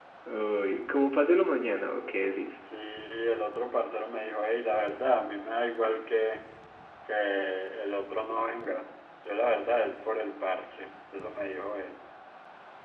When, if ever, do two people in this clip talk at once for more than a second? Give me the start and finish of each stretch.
none

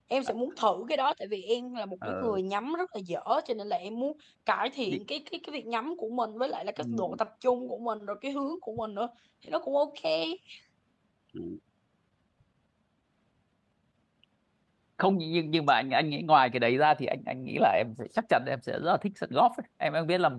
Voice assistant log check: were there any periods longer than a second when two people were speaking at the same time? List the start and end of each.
none

